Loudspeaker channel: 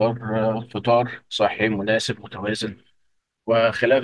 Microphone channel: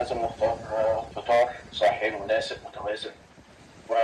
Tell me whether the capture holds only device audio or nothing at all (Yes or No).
Yes